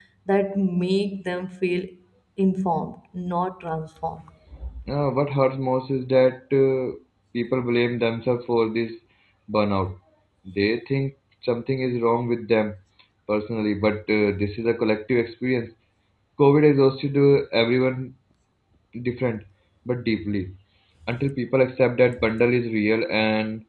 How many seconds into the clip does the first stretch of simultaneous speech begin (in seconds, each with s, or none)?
none